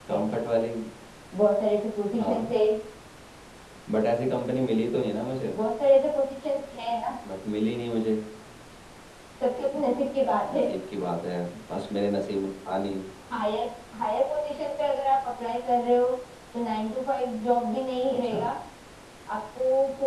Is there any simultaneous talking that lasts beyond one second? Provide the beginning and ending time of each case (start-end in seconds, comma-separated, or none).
none